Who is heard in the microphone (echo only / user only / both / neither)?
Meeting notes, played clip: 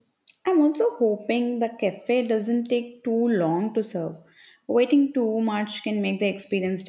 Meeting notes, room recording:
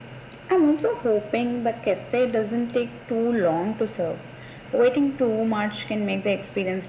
echo only